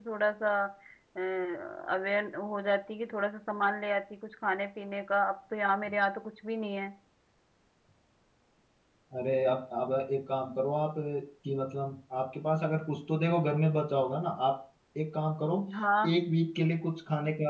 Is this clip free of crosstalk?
Yes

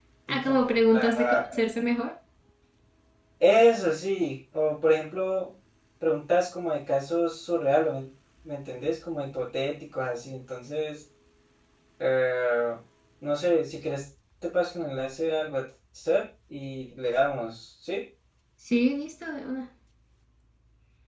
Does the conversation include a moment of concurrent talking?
Yes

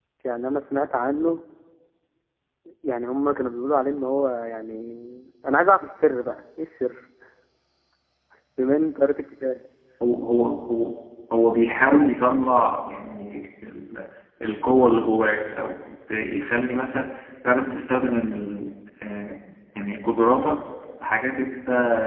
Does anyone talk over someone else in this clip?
No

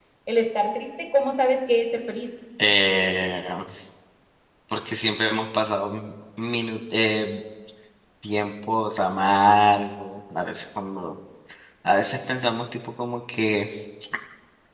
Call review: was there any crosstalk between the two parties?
No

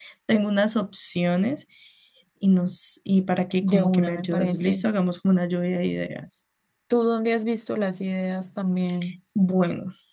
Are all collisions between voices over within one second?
No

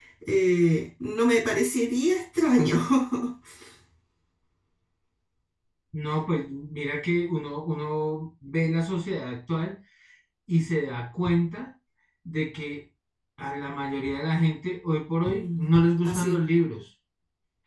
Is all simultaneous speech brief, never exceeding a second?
Yes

